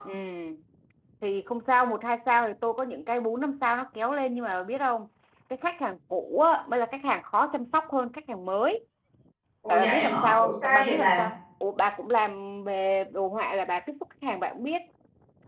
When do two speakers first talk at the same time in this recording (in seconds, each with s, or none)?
9.7 s